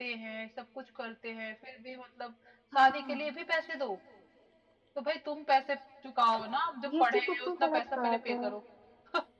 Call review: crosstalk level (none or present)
present